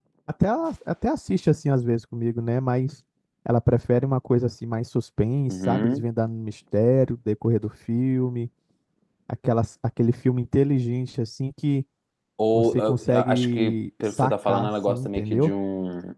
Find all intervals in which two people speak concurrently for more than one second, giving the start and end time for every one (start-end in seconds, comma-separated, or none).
12.5-15.5